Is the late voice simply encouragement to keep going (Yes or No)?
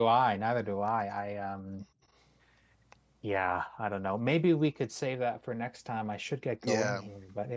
Yes